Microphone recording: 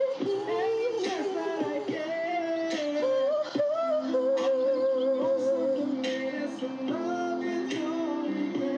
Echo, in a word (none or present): present